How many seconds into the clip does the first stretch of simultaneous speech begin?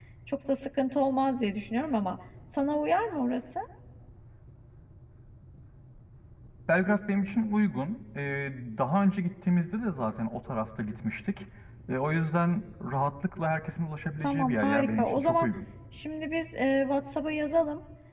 14.2 s

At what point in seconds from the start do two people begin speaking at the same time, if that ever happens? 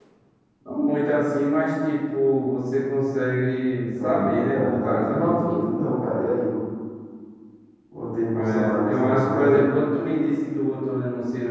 4.0 s

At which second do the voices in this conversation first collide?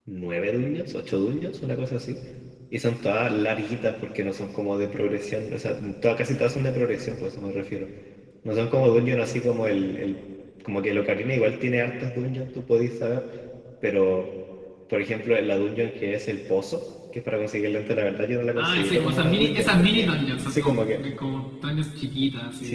18.5 s

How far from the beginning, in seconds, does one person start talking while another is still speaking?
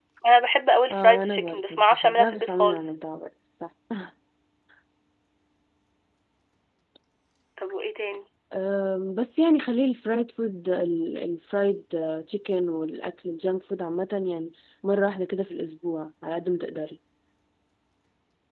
0.9 s

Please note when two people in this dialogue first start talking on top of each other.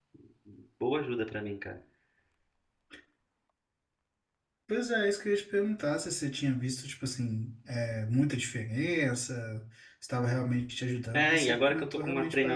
11.1 s

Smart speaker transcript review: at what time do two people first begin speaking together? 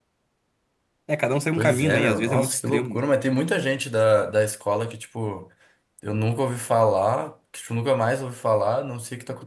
1.6 s

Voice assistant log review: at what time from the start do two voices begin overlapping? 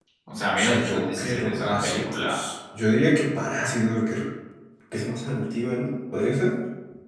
0.6 s

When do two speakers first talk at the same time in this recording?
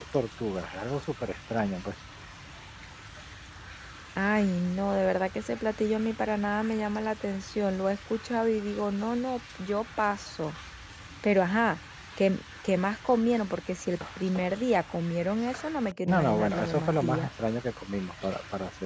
16.1 s

